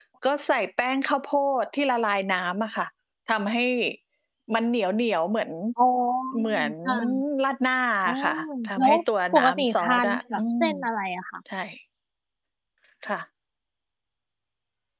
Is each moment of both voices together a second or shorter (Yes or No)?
No